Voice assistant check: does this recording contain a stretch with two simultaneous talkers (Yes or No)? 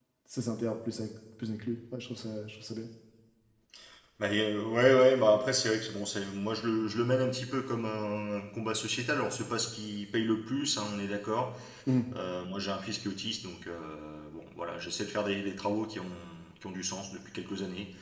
No